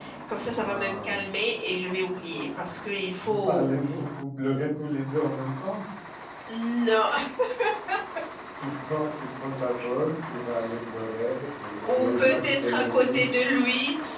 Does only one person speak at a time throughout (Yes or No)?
No